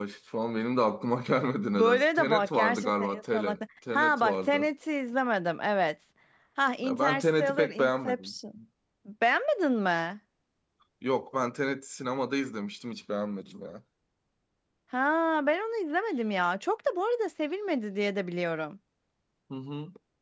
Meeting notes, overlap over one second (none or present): present